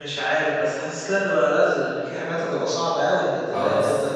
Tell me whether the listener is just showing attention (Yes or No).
No